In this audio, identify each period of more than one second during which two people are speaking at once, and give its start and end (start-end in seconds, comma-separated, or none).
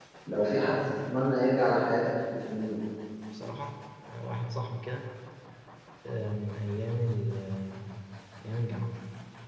none